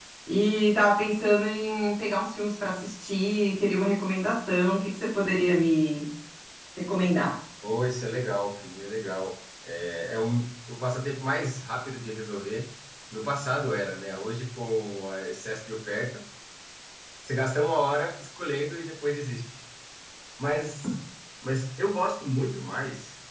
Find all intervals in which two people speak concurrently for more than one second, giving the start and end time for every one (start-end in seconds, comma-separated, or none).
none